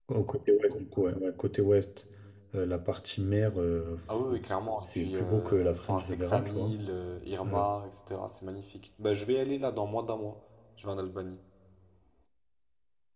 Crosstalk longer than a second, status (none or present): present